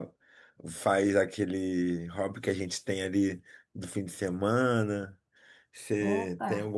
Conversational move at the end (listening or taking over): listening